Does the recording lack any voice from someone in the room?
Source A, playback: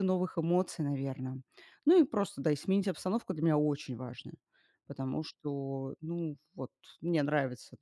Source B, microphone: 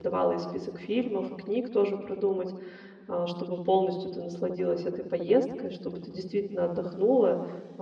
No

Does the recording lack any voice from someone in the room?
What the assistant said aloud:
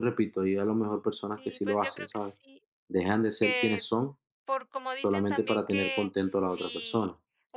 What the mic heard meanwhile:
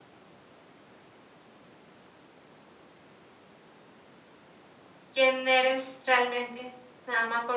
No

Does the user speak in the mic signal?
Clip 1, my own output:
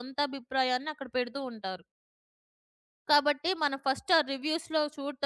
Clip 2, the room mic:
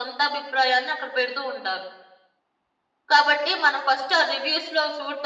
No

